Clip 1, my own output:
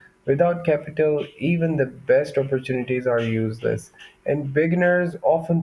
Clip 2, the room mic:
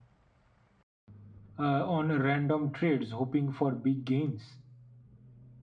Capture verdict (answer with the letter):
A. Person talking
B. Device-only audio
A